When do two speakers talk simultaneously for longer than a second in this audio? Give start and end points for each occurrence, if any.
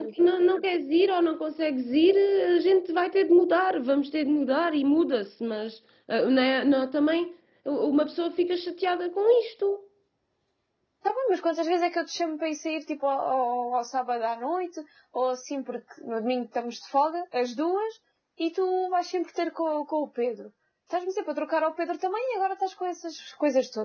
none

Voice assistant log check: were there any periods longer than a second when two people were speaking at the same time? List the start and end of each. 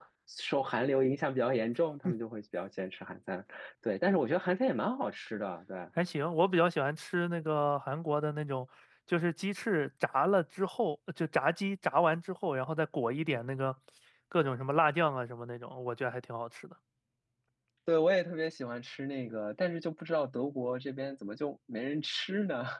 none

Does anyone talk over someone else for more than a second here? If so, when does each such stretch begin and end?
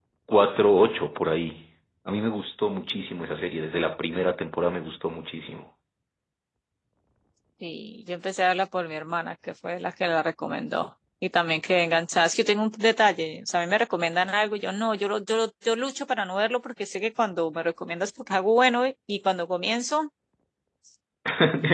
none

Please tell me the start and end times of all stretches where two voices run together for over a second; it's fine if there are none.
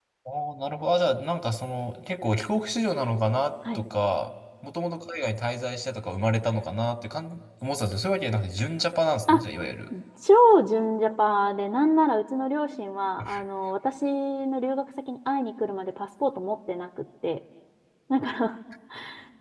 none

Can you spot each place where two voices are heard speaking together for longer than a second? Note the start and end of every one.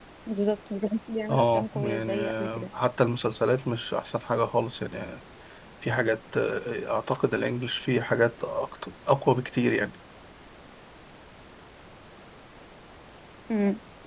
1.3-2.7

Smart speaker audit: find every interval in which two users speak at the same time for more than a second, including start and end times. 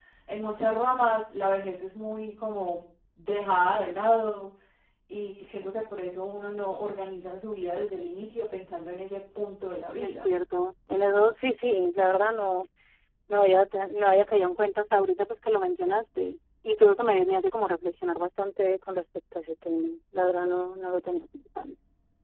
none

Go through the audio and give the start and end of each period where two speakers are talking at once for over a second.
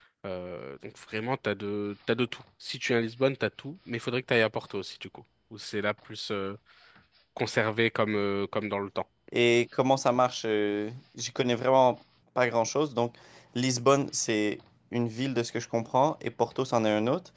none

